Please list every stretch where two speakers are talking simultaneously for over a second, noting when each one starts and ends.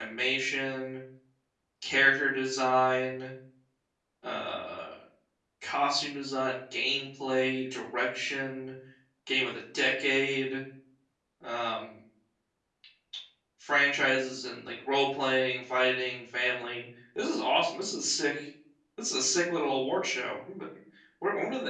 none

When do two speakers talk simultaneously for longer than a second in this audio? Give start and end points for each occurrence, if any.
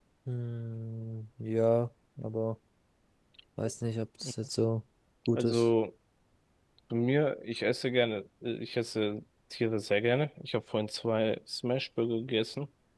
none

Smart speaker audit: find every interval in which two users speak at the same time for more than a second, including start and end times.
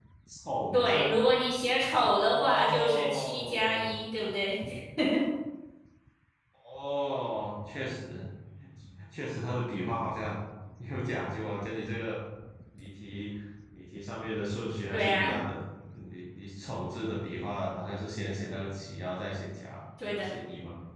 2.3-3.8

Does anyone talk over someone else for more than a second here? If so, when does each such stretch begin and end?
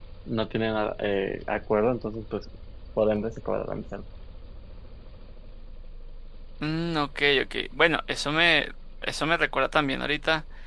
none

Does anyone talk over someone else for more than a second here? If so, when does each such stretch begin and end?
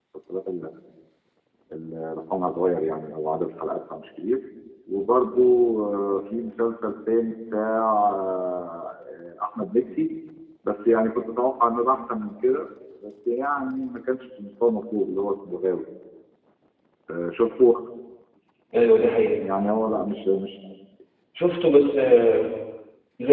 none

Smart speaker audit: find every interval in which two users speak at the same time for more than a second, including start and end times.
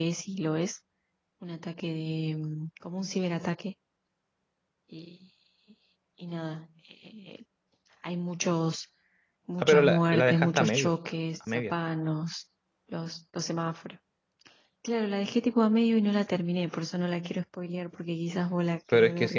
9.6-10.9

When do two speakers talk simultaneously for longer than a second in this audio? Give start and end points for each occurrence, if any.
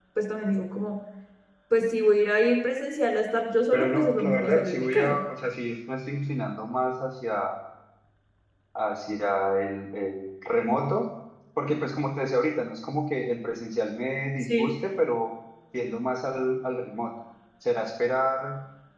3.7-5.2

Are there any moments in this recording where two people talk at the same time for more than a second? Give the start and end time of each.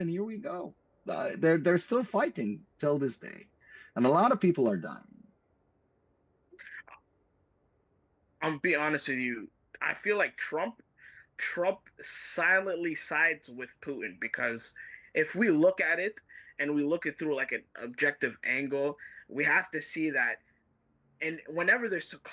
none

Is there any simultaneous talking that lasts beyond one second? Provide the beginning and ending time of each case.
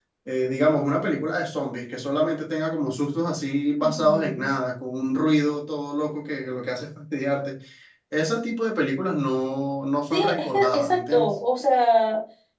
10.1-11.3

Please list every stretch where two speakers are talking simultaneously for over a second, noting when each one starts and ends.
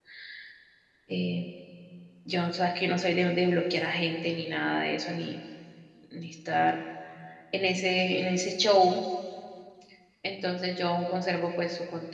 none

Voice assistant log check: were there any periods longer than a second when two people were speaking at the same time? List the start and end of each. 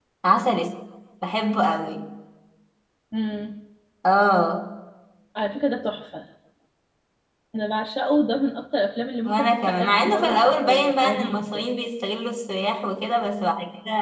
9.2-11.7

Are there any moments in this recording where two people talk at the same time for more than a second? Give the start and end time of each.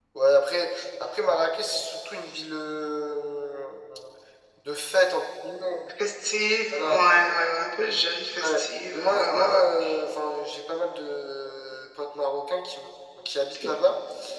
8.4-9.6

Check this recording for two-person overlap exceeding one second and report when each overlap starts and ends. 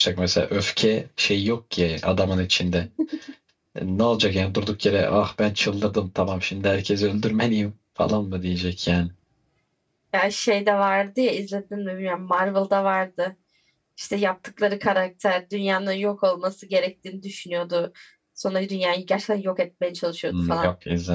none

